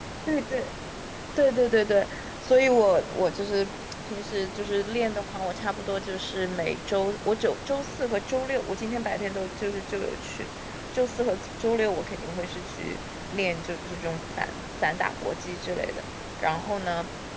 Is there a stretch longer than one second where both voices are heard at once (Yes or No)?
No